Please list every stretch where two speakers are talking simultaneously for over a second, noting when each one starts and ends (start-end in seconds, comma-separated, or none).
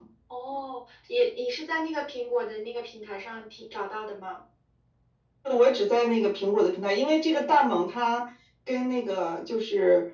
none